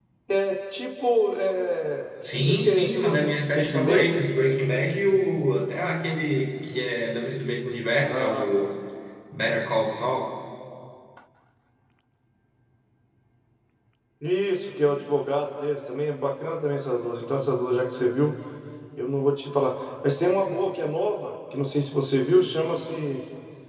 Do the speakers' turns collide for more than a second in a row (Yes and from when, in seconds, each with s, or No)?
Yes, from 2.2 s